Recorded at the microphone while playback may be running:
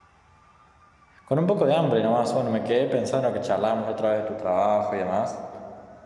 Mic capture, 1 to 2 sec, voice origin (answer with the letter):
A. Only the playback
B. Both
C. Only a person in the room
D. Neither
C